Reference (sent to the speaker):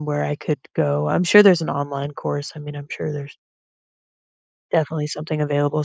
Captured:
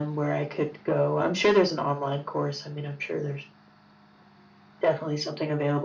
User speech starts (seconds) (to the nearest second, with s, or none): none